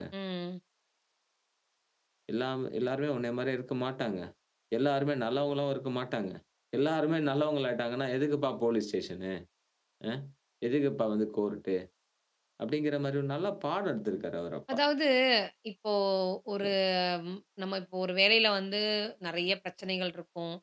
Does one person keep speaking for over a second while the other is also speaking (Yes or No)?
No